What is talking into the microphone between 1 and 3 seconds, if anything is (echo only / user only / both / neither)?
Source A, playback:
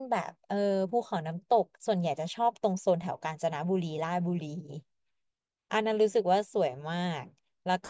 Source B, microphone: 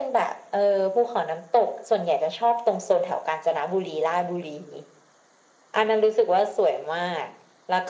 echo only